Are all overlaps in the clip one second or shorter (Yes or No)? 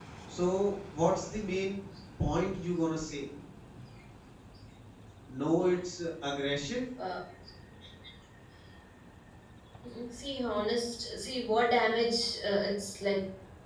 Yes